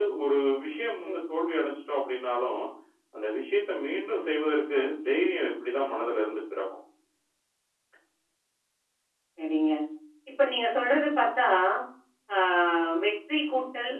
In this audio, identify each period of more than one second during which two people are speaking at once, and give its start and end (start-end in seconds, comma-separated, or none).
none